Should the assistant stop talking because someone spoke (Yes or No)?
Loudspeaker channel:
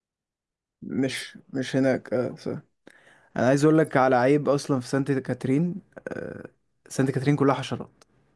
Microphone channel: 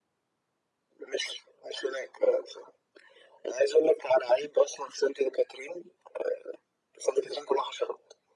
No